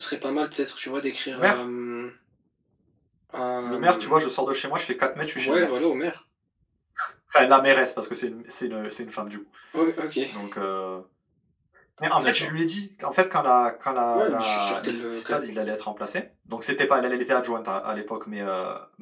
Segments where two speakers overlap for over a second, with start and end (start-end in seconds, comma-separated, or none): 14.1-15.4